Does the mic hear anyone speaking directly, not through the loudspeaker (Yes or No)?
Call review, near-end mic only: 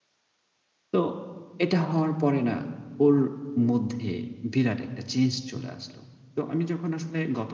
Yes